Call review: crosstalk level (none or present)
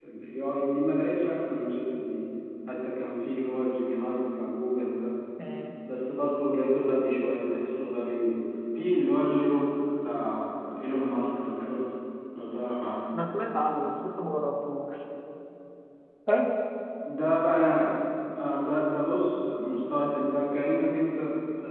none